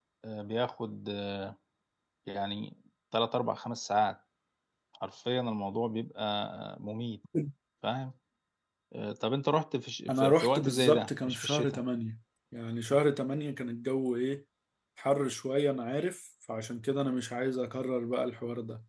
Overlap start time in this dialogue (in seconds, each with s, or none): 10.1 s